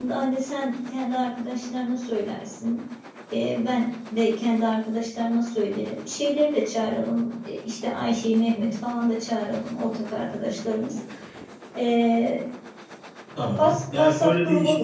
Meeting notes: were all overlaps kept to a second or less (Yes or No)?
No